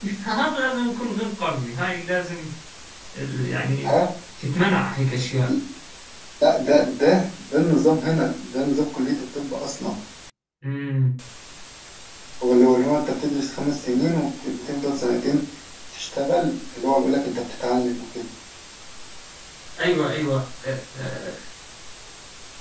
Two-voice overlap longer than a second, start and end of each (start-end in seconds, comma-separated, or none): none